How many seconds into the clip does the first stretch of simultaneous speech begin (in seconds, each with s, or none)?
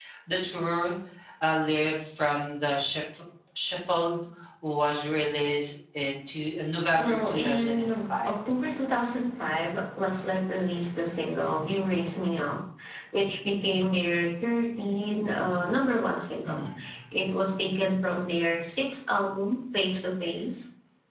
7.0 s